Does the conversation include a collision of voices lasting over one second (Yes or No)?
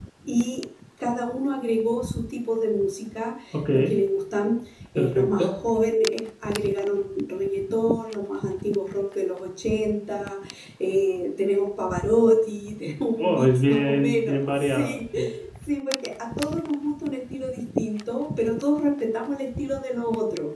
Yes